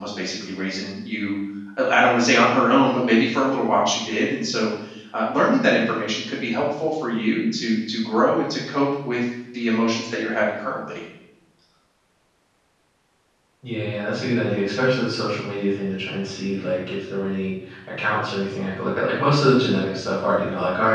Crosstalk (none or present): none